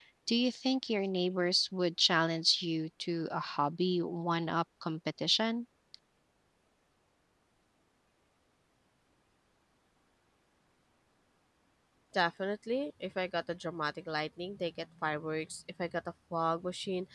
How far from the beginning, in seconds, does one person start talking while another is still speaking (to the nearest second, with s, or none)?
none